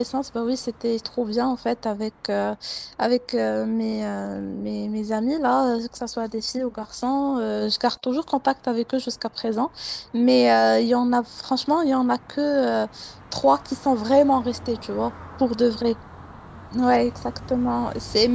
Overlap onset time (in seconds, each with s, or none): none